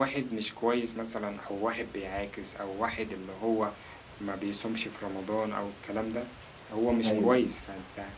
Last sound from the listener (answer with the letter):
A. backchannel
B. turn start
A